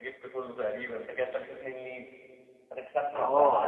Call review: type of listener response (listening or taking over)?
taking over